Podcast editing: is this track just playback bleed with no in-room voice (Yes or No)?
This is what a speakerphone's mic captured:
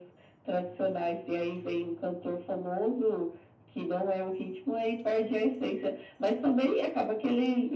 Yes